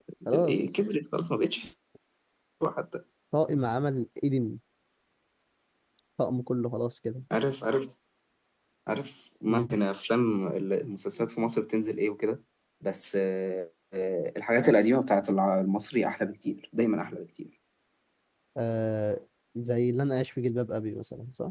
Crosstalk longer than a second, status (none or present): none